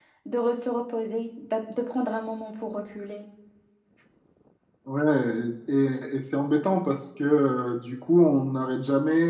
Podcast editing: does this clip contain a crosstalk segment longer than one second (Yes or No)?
No